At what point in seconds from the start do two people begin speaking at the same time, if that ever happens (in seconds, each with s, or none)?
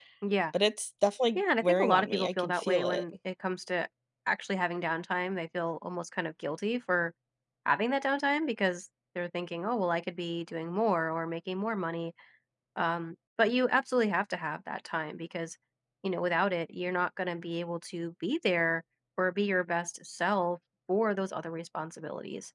1.4 s